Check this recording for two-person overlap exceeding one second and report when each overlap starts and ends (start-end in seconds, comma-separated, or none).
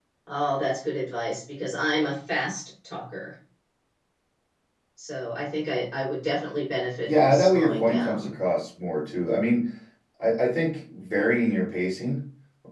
7.0-8.3